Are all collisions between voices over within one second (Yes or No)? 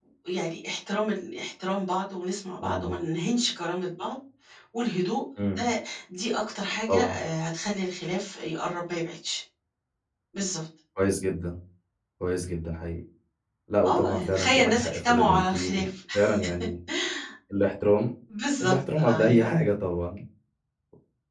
No